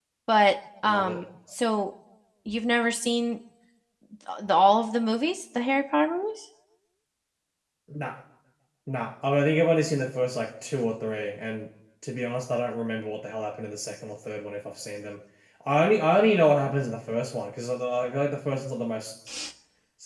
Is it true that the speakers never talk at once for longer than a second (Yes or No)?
Yes